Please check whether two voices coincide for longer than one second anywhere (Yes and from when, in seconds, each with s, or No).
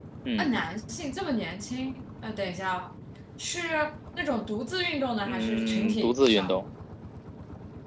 Yes, from 5.2 s